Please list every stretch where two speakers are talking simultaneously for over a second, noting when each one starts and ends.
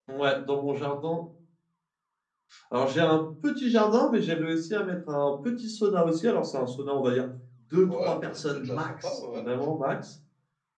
7.9-9.4

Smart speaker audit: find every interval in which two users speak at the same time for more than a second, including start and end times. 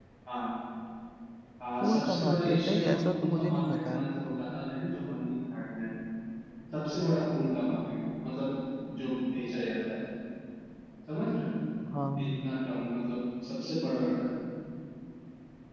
1.8-4.1

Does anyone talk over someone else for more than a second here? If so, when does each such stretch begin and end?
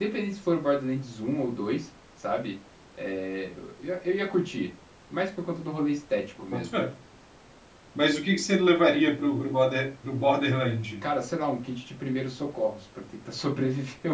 none

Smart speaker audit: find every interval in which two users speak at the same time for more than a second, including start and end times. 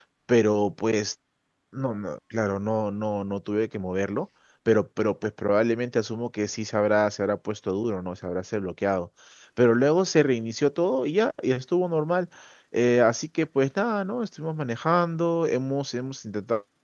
none

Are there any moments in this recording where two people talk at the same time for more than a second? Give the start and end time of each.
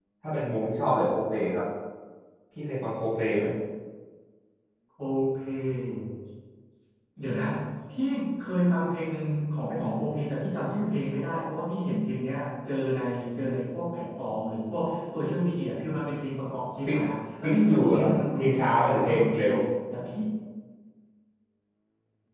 17.4-19.4

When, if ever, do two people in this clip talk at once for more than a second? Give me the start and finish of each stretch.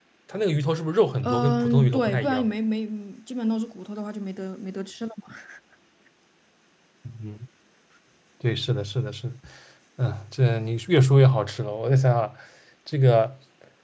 1.2-2.5

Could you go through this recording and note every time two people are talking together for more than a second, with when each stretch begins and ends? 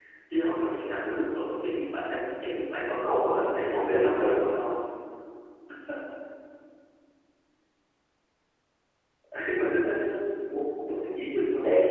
3.0-4.4

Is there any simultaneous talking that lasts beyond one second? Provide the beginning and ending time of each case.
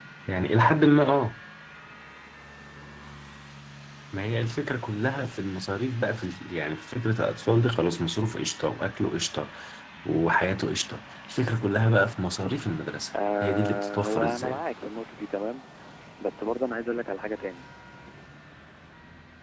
13.4-14.6

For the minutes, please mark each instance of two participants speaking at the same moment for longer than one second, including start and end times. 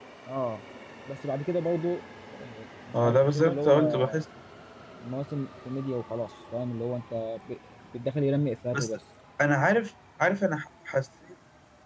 2.9-4.2

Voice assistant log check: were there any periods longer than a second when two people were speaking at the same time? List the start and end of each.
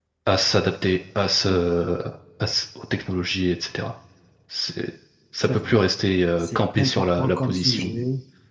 6.4-7.9

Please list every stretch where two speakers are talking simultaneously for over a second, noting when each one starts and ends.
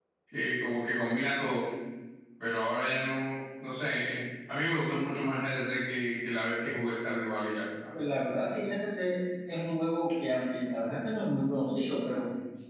none

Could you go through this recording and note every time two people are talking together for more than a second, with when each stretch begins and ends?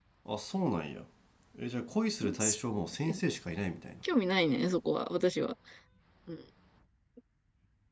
none

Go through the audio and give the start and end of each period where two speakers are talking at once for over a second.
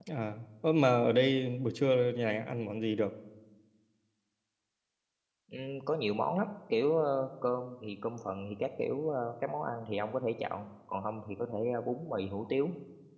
none

